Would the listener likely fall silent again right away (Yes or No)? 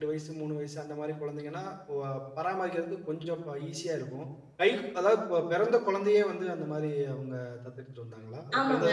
No